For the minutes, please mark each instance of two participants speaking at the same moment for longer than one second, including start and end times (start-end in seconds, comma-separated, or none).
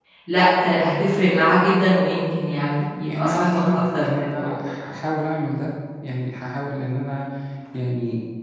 3.0-4.5